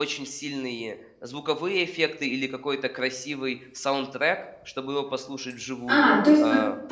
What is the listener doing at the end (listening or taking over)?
taking over